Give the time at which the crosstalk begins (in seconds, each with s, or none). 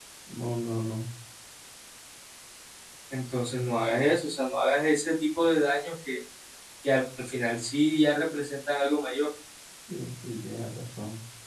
none